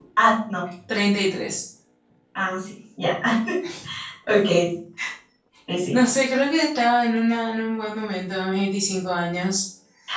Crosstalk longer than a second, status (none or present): none